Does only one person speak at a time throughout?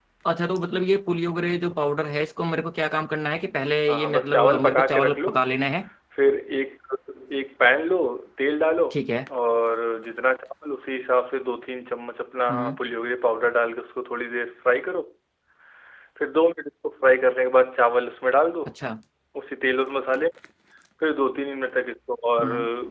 No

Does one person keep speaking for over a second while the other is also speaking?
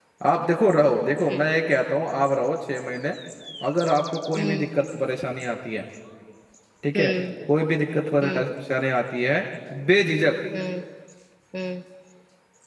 No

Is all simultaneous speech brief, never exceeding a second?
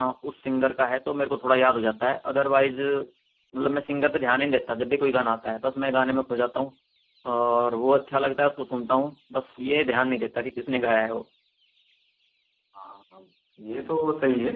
Yes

